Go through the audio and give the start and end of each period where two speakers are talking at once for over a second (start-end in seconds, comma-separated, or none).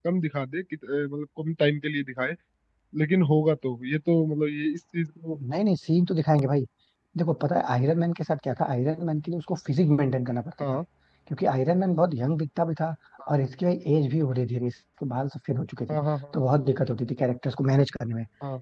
none